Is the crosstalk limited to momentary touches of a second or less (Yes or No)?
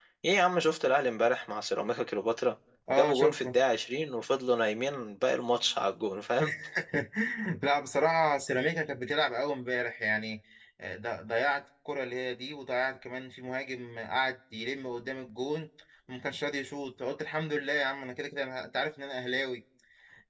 Yes